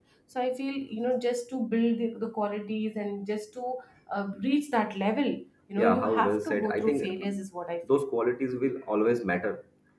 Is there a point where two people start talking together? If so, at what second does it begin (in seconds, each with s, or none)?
5.8 s